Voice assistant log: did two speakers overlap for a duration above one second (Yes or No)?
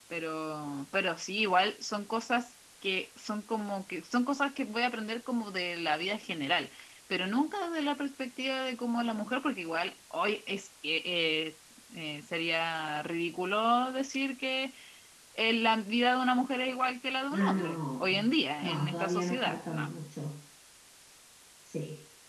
Yes